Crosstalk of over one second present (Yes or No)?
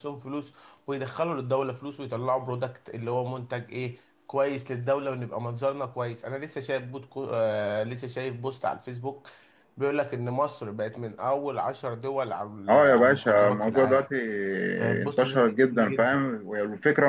Yes